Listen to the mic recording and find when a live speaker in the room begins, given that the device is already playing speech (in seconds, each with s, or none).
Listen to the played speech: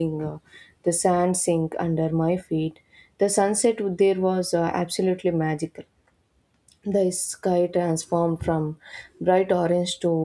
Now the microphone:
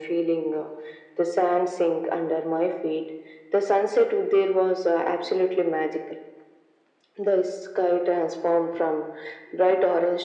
none